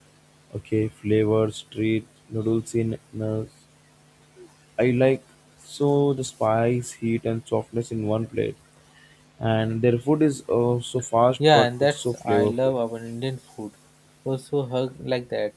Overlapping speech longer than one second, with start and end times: 11.5-12.7

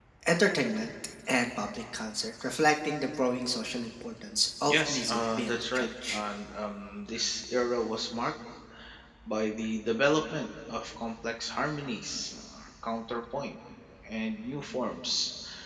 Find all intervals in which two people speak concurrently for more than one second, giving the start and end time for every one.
4.7-6.2

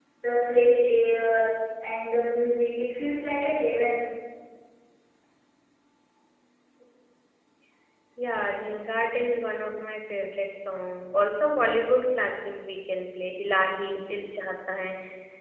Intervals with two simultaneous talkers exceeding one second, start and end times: none

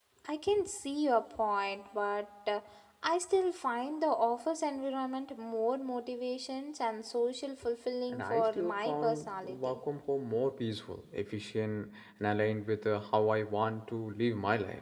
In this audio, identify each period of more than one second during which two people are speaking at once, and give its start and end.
8.1-9.8

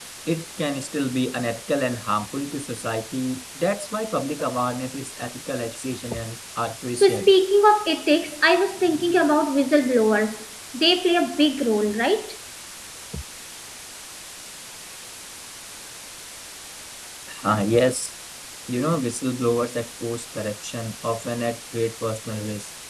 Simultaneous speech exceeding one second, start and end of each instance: none

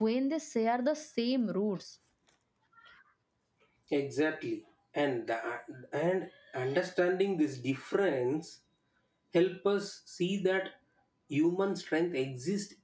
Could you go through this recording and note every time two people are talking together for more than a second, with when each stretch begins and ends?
none

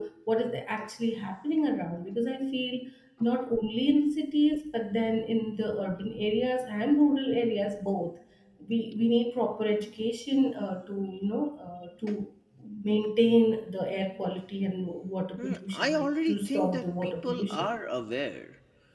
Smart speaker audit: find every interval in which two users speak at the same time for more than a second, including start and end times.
15.4-17.7

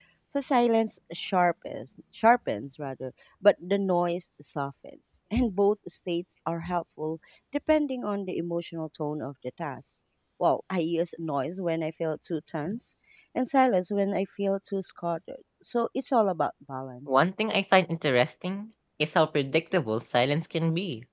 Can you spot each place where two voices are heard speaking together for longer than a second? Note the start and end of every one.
none

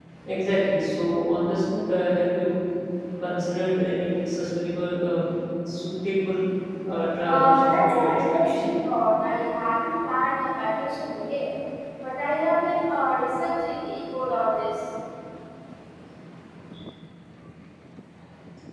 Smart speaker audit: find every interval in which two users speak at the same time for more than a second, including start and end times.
7.2-8.8

